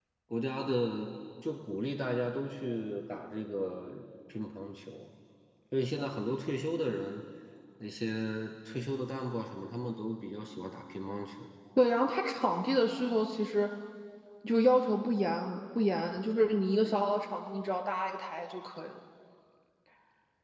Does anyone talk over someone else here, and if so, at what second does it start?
none

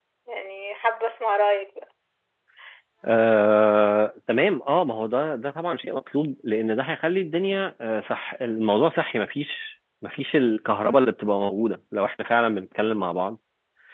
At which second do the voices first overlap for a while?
none

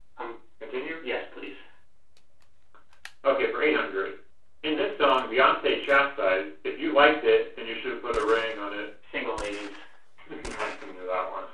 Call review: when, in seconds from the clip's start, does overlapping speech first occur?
none

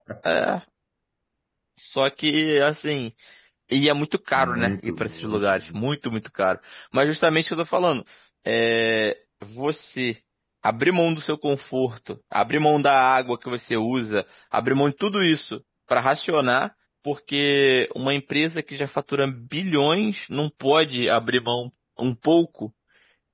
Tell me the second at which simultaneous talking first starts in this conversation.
4.4 s

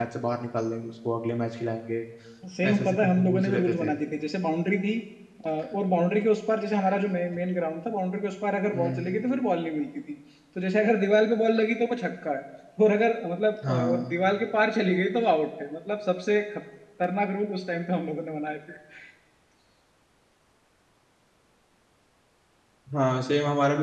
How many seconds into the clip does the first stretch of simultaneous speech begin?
2.7 s

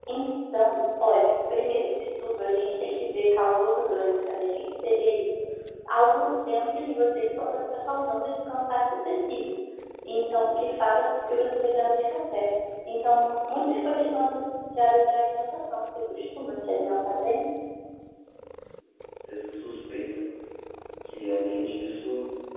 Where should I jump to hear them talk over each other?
none

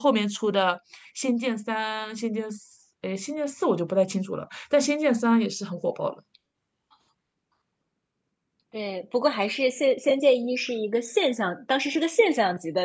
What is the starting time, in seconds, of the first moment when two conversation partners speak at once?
none

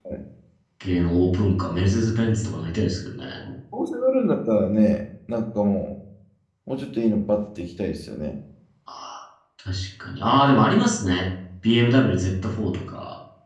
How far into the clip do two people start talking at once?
none

